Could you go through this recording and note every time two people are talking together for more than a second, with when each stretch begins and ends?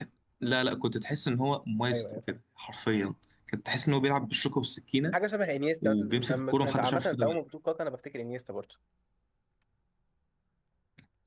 5.8-7.4

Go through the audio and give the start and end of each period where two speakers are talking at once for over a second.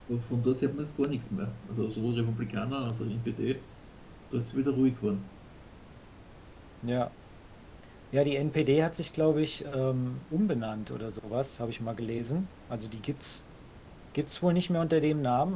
none

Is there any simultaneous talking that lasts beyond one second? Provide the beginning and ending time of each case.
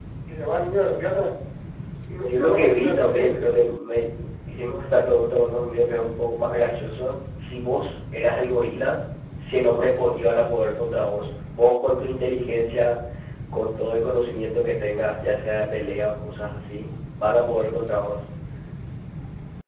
2.2-3.4

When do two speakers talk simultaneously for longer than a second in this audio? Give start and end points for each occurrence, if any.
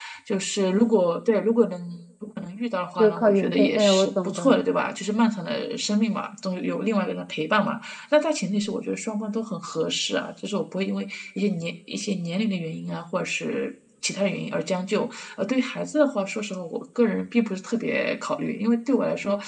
3.0-4.4

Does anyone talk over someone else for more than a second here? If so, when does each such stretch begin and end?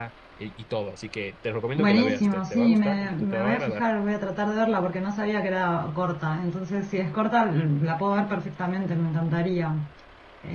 1.8-3.8

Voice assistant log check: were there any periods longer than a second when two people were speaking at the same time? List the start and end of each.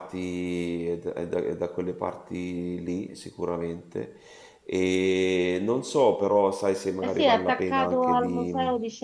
7.0-8.5

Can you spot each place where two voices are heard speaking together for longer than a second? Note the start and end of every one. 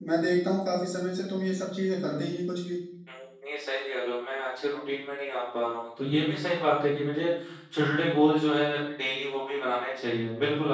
none

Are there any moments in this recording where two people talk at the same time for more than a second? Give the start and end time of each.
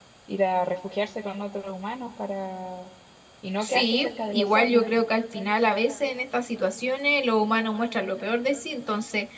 3.6-5.0

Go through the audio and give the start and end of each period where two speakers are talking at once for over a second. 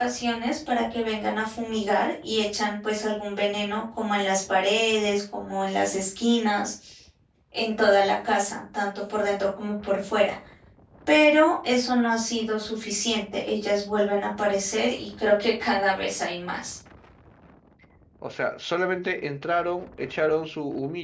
none

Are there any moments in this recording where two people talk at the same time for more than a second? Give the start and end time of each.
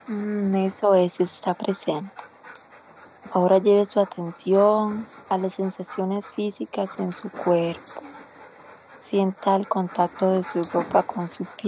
none

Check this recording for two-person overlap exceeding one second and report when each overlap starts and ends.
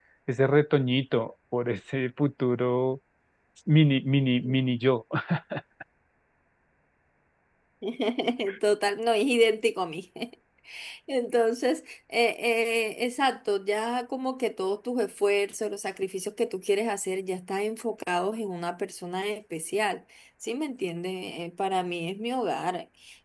none

